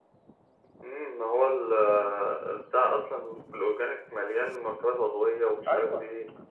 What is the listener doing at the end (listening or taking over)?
taking over